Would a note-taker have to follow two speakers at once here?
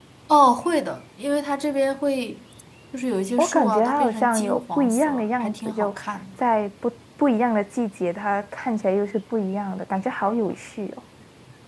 Yes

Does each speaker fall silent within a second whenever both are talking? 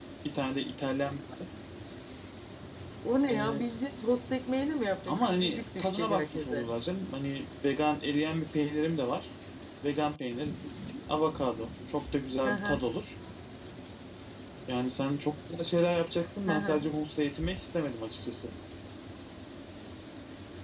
No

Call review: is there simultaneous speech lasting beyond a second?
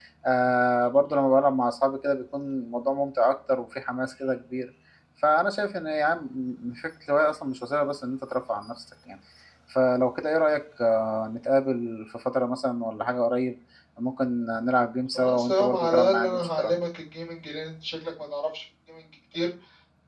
Yes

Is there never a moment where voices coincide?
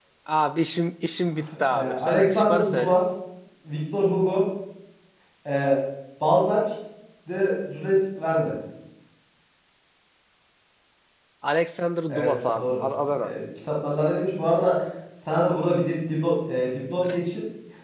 No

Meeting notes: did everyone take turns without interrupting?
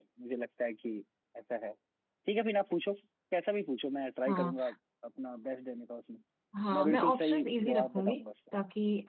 No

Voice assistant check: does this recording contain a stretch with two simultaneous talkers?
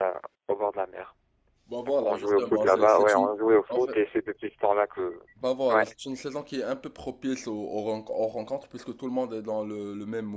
Yes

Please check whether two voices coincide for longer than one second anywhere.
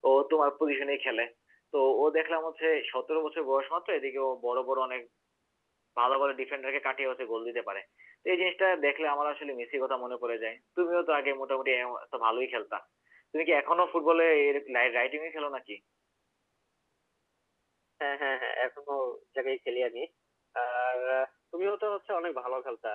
No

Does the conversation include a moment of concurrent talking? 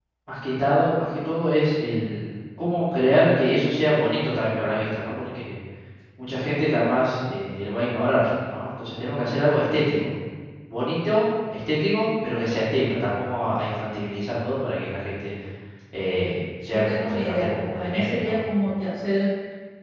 Yes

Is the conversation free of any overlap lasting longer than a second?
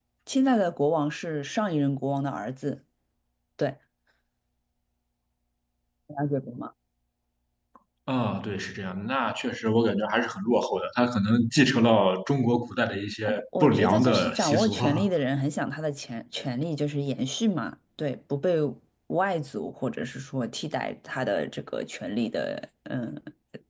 No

